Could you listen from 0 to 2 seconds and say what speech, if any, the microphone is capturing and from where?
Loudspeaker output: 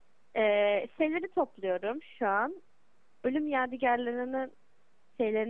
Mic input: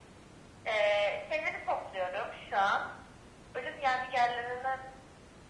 echo only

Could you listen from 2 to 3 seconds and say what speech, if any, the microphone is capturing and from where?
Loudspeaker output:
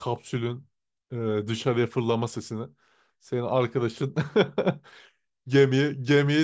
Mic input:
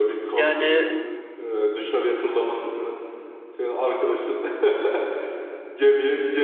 echo only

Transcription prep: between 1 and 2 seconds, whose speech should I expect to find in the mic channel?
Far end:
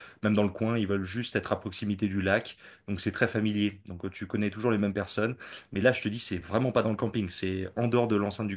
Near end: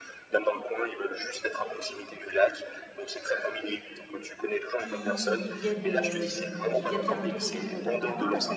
echo only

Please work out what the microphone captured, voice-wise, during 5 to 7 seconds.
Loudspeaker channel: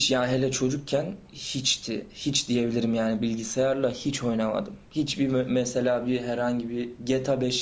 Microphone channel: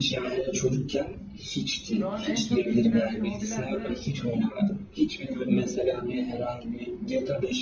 echo only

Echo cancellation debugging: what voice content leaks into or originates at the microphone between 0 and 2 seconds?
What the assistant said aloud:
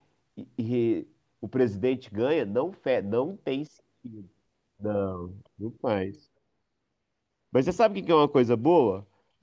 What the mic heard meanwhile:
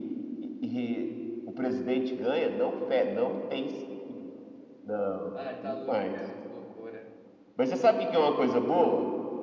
echo only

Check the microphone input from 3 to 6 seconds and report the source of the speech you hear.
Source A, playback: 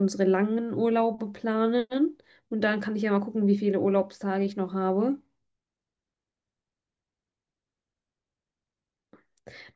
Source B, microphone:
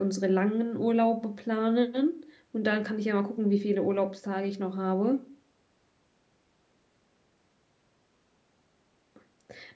echo only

